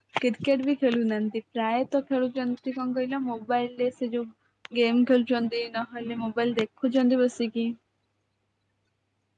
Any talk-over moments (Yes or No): No